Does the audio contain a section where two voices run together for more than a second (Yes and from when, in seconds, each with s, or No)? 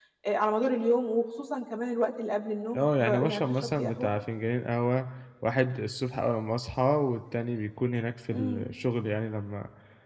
Yes, from 2.8 s